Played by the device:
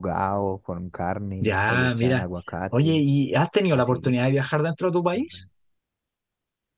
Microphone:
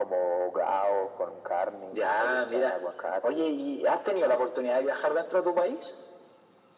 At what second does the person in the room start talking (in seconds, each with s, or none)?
none